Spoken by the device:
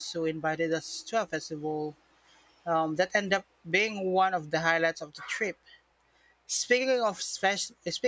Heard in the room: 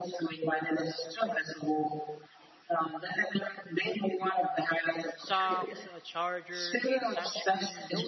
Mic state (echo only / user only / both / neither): both